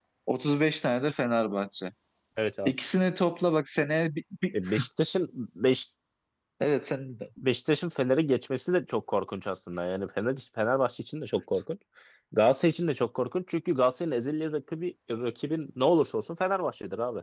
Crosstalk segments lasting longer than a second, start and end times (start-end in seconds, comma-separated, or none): none